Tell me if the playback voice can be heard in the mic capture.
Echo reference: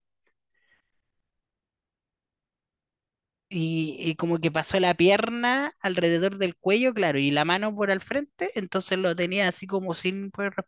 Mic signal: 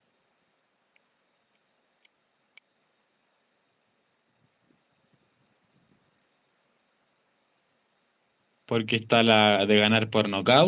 No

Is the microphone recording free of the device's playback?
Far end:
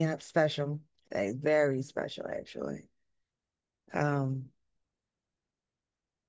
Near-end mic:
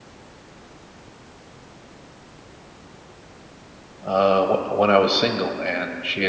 Yes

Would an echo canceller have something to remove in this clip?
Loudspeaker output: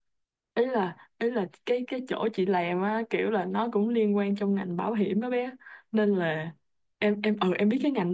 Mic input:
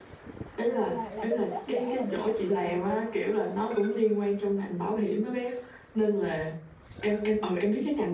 Yes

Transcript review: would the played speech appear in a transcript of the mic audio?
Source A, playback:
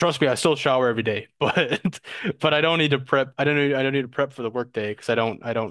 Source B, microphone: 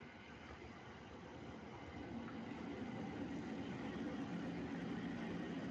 No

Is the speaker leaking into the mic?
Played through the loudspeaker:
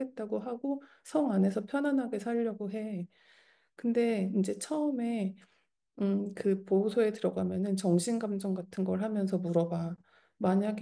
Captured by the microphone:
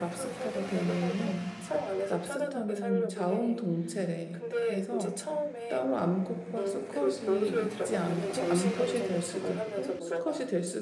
Yes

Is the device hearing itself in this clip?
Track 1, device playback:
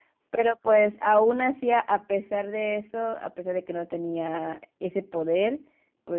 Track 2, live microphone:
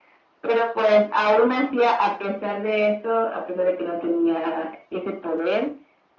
Yes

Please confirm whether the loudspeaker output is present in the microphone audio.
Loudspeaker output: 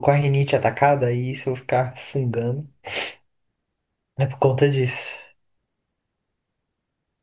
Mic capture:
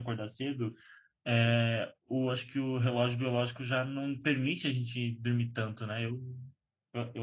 No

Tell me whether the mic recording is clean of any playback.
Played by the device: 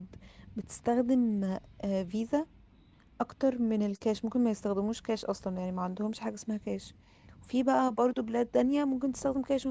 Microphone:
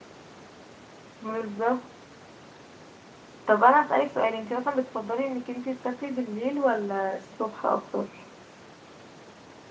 Yes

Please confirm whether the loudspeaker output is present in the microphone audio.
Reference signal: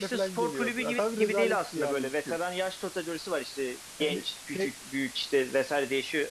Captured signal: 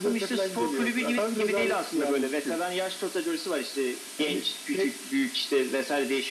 Yes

